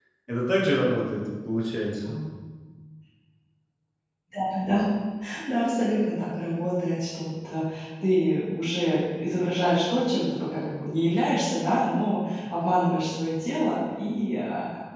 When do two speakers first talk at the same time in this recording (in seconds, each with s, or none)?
none